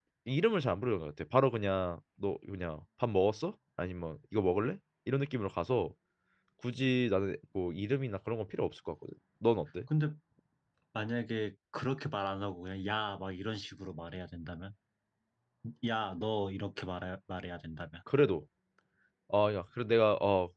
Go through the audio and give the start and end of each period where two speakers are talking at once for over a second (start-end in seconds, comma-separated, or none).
none